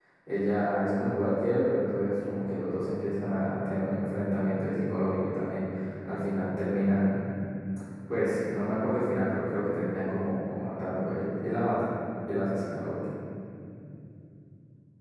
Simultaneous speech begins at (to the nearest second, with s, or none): none